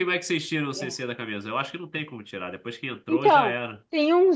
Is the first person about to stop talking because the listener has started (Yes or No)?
Yes